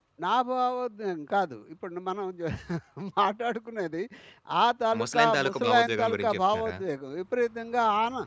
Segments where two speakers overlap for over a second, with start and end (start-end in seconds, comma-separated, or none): 5.0-6.8